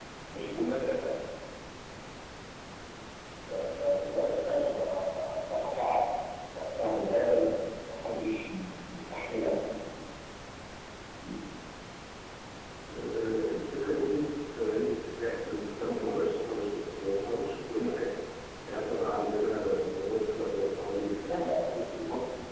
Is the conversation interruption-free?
Yes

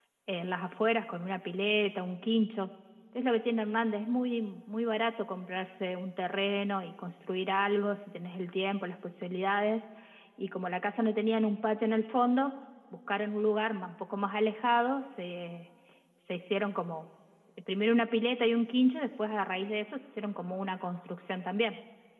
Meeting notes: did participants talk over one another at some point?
No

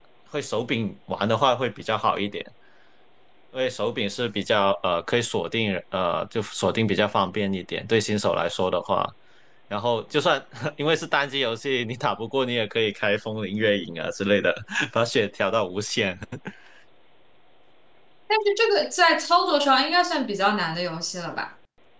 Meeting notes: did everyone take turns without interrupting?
Yes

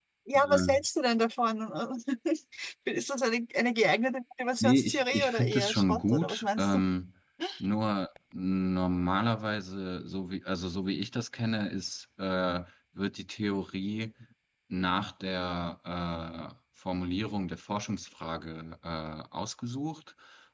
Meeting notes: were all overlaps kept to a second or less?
No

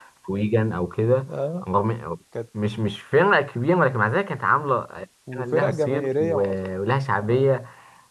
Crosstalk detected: Yes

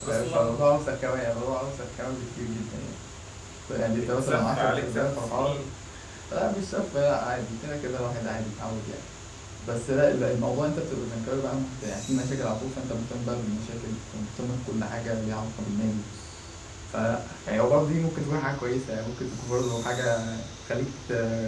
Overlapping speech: Yes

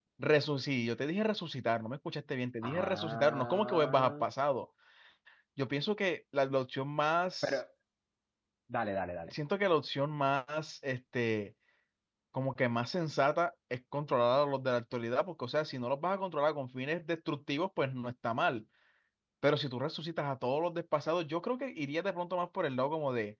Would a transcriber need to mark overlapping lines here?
Yes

